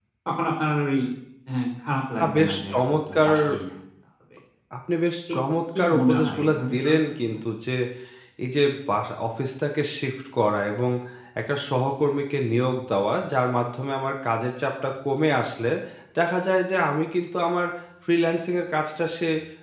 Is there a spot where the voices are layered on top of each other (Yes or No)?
Yes